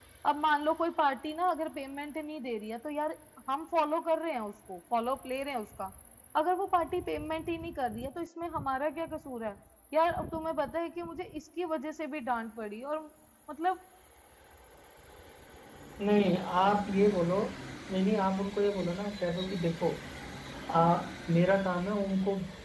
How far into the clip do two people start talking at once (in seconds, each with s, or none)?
none